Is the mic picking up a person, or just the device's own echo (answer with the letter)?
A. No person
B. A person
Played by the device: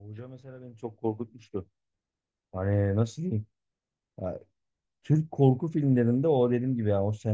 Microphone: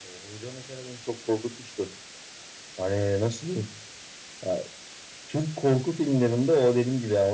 A